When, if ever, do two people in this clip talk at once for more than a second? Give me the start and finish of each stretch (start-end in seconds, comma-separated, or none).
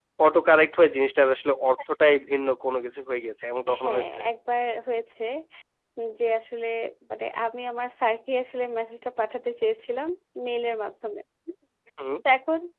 none